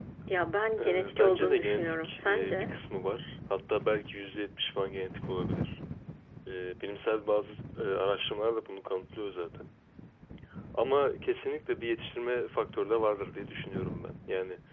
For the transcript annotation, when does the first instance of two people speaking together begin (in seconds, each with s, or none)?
0.8 s